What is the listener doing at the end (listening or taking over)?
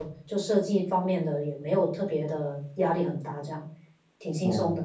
taking over